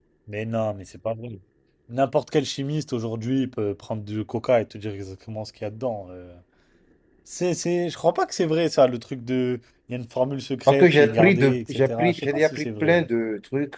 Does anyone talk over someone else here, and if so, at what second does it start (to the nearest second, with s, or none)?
11 s